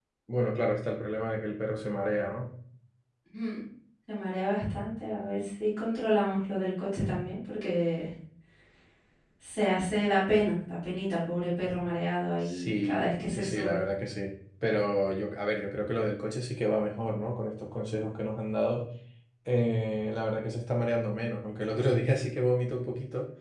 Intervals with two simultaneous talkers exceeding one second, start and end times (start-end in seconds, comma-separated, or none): 12.4-13.8